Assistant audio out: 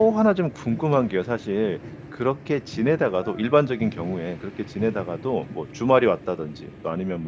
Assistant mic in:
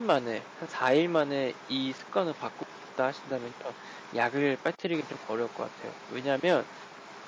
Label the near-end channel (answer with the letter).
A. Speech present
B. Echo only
A